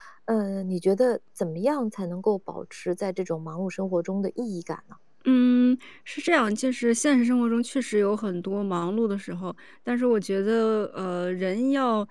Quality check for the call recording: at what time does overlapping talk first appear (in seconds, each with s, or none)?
none